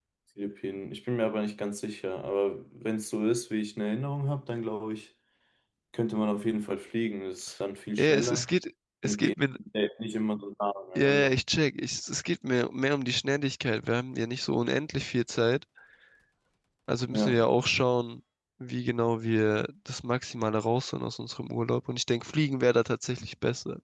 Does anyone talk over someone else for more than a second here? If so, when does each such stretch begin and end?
none

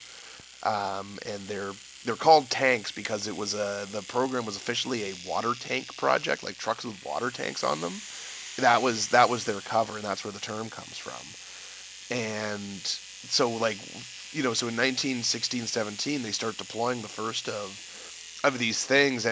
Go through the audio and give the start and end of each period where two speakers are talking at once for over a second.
none

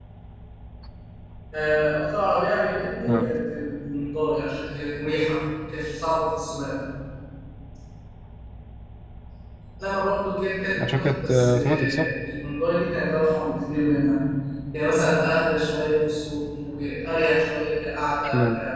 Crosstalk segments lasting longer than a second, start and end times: 10.9-12.1

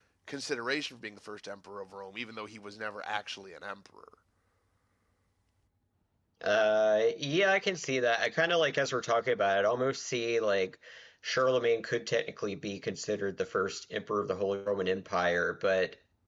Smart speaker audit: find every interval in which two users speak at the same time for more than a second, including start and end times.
none

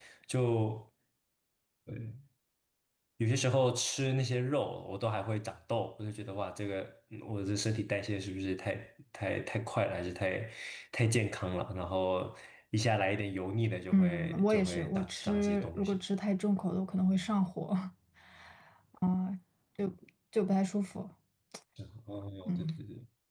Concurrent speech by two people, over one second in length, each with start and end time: 13.9-16.0

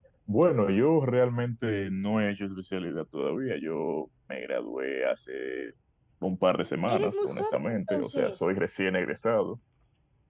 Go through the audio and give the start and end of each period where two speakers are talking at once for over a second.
6.9-8.4

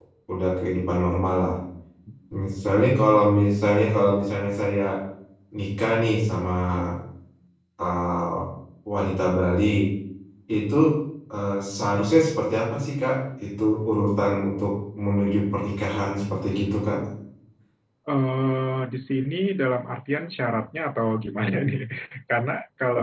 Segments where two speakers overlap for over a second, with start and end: none

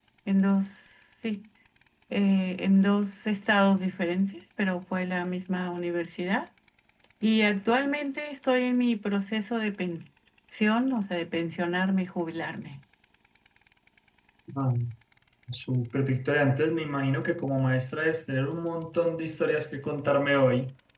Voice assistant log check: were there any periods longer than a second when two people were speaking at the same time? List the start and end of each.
none

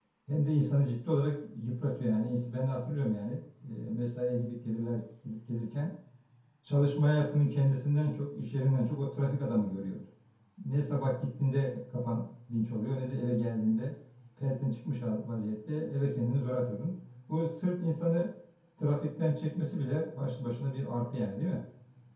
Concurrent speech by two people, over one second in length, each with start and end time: none

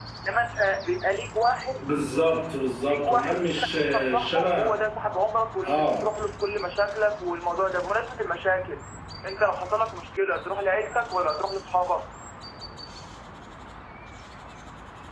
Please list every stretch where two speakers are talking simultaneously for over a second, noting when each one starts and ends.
2.9-4.7

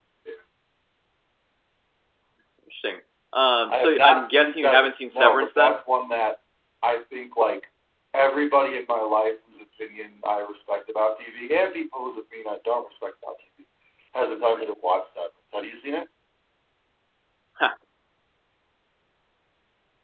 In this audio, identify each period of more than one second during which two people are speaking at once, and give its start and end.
3.7-5.8

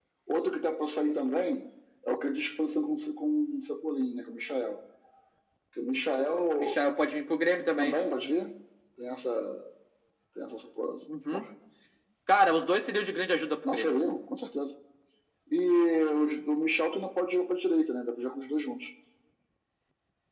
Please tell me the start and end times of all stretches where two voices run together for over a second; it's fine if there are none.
none

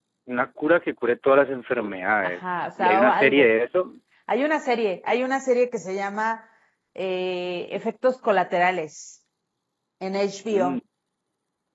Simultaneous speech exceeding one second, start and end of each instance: 2.2-3.5

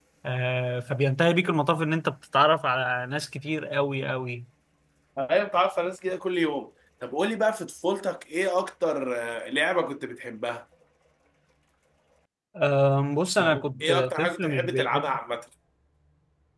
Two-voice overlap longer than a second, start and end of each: 13.4-15.1

